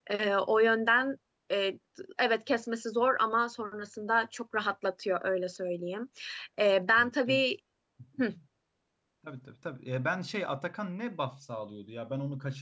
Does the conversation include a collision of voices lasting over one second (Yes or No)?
No